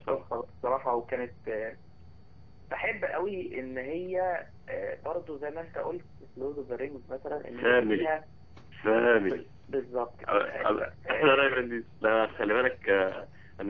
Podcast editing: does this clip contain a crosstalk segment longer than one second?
Yes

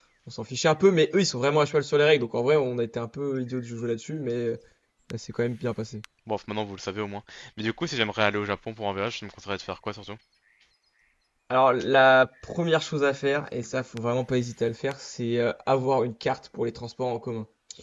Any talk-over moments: No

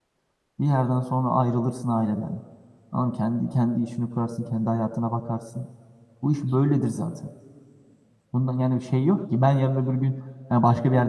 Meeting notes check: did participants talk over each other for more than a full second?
No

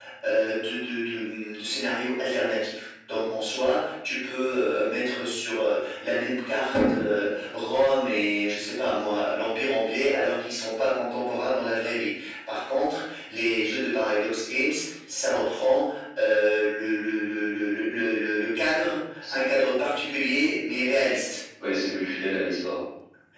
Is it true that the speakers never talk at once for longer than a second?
Yes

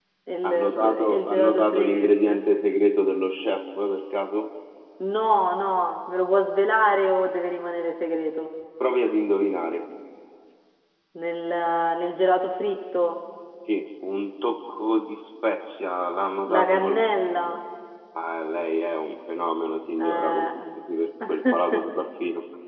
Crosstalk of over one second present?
Yes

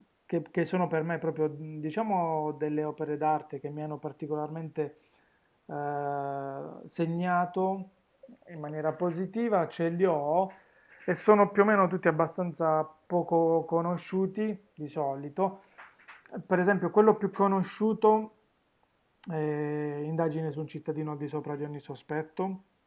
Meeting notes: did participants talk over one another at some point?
No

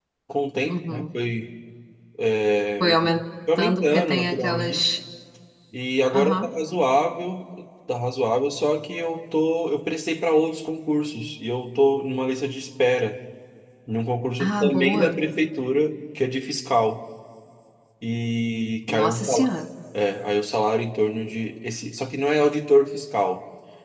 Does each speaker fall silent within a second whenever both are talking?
No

